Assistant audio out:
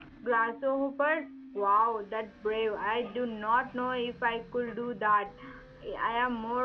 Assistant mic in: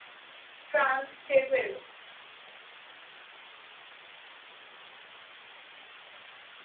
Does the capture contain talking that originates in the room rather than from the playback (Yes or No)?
Yes